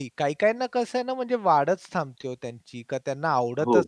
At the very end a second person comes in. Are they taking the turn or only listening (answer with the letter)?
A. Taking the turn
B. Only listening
B